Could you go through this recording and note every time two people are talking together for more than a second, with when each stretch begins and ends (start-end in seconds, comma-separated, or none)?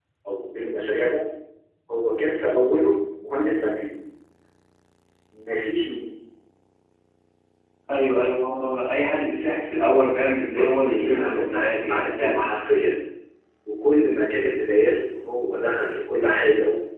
10.6-12.5